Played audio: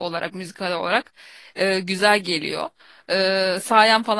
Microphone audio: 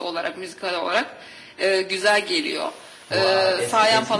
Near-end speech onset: 3 s

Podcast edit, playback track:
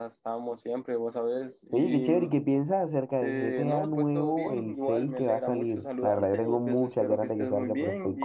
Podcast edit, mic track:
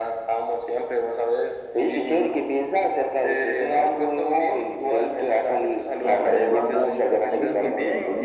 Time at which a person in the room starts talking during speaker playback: 6 s

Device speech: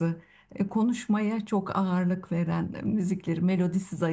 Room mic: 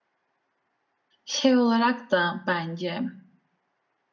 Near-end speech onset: 1 s

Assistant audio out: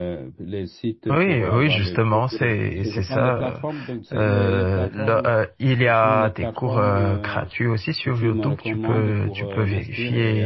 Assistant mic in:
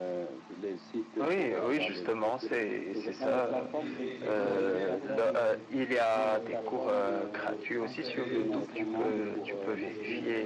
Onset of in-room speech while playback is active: 3 s

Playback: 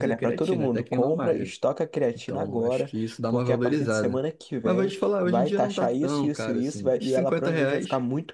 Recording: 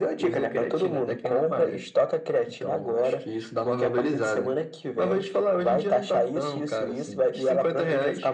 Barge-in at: none

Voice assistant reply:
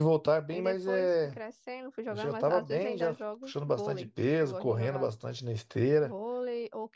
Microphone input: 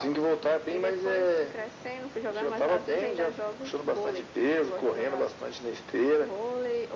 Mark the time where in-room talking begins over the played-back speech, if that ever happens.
none

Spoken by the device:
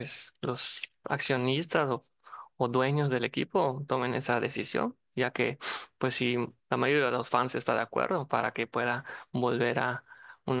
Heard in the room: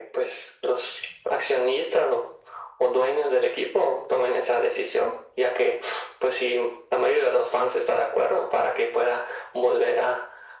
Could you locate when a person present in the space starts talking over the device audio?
none

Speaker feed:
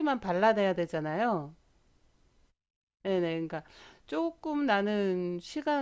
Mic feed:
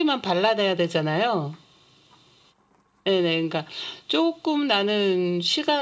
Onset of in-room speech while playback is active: none

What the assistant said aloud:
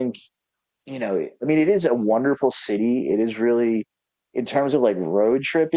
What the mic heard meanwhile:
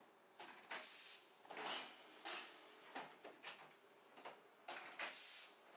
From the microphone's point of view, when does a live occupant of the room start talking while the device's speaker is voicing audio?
none

